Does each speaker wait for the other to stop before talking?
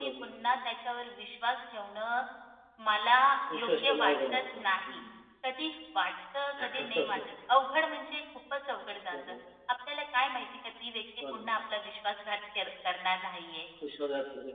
No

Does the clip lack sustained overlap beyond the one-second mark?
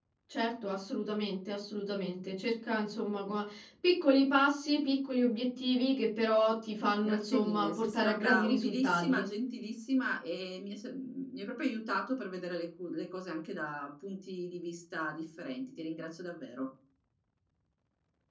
No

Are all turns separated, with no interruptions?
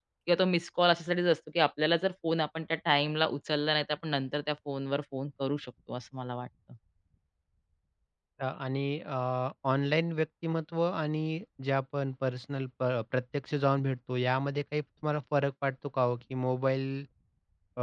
Yes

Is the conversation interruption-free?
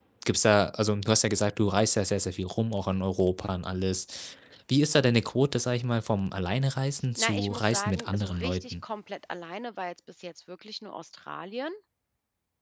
No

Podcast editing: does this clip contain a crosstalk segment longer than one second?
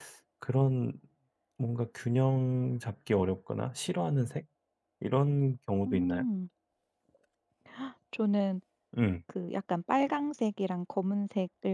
No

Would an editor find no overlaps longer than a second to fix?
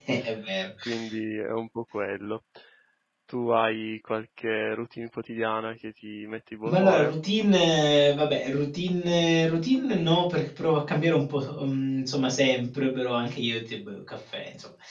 Yes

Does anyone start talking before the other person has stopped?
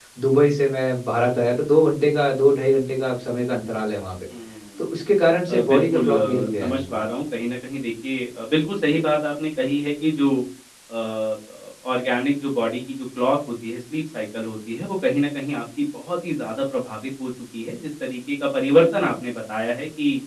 Yes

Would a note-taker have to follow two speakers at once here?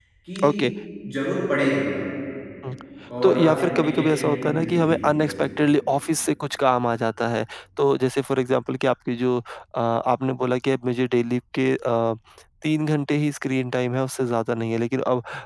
Yes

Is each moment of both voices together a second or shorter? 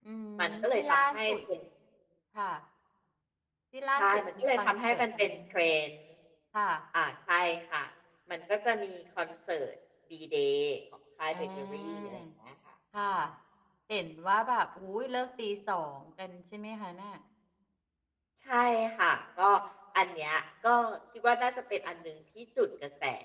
No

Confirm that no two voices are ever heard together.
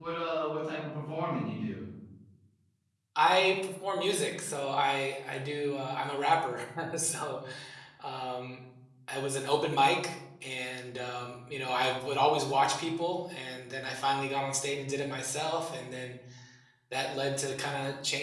Yes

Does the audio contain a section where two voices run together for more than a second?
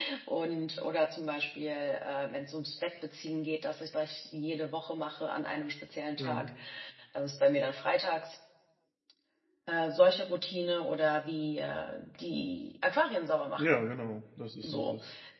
No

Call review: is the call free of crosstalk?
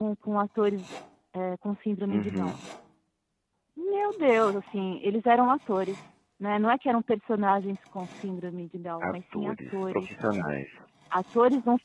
No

